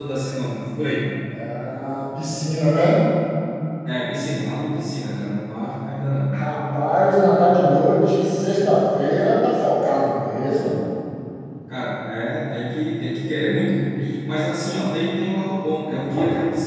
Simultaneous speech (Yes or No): No